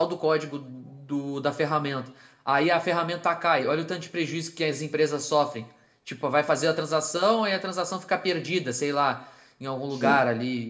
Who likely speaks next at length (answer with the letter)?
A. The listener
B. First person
B